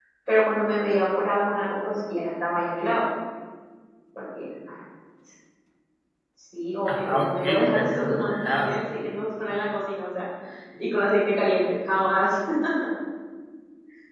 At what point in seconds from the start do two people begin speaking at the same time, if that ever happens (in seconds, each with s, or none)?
6.9 s